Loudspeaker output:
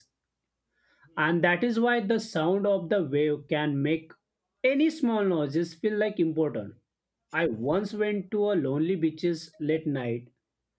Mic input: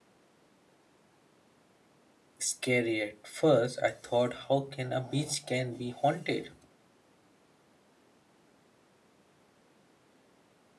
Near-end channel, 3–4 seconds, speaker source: user only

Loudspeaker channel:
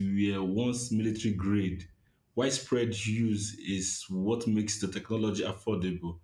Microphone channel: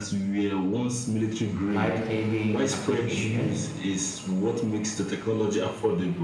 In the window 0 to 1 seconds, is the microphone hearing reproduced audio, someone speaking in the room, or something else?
echo only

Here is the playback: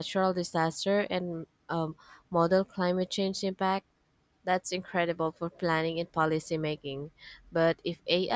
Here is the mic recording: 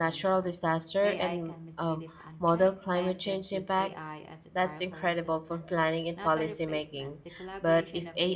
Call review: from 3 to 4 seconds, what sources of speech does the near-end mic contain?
both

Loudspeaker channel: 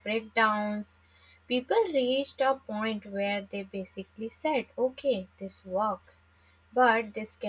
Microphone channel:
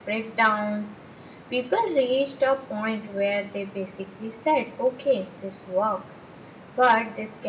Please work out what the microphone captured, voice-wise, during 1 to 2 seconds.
echo only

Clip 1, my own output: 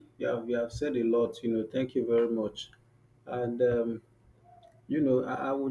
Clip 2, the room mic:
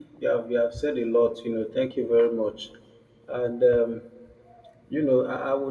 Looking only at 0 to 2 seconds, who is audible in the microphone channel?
echo only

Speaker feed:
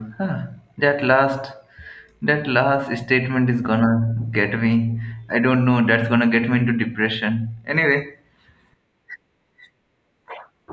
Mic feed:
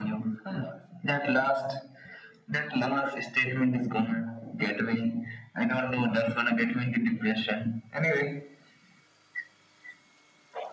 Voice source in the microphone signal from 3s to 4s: echo only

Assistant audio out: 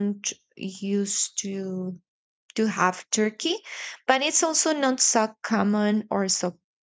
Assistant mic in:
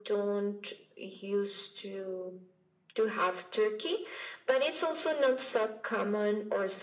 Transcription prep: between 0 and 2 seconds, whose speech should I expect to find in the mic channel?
echo only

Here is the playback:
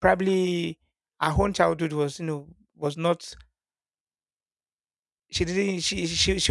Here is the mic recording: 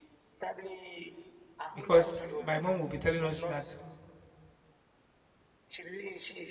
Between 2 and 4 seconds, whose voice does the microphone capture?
both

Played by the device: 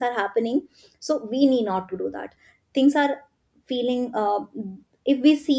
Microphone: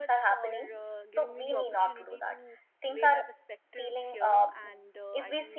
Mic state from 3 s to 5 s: both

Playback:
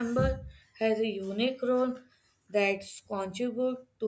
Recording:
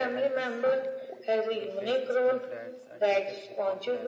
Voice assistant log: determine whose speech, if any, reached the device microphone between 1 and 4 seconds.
both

